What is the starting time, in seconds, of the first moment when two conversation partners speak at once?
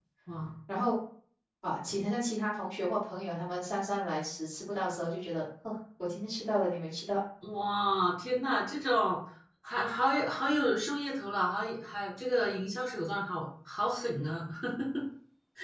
none

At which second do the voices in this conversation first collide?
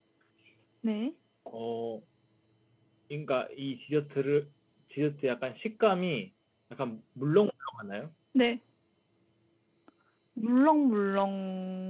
none

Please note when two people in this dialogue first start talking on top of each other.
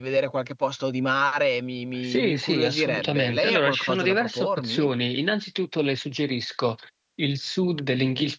2.0 s

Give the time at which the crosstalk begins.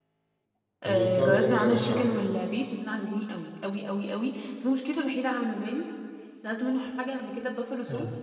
0.8 s

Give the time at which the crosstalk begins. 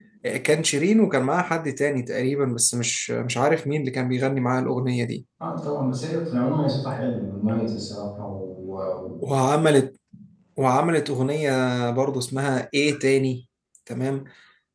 none

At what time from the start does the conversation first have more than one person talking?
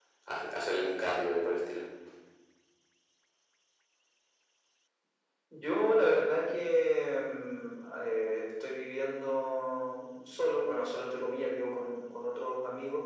none

